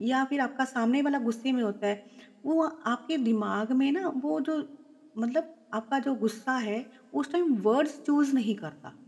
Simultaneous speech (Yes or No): No